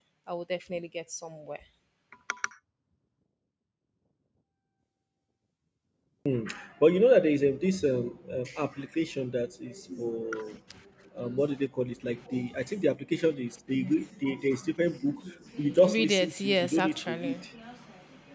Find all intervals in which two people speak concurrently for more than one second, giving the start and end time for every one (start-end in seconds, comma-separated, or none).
15.9-17.4